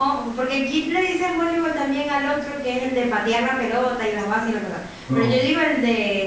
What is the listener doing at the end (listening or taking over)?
listening